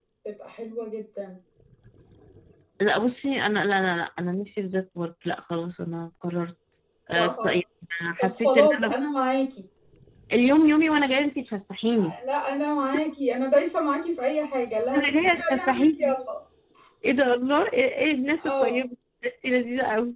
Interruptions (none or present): present